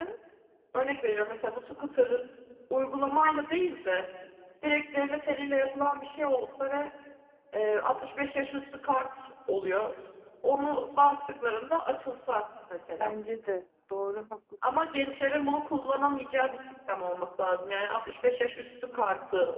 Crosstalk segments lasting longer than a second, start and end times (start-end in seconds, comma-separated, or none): none